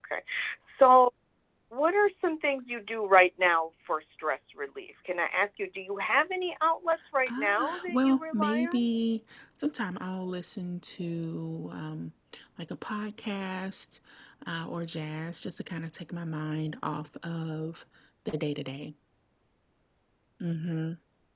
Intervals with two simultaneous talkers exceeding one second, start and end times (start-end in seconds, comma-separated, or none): 7.3-8.8